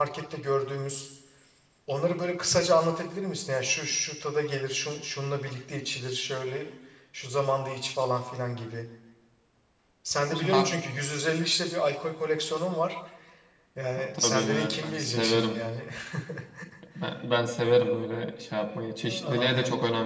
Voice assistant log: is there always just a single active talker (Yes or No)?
No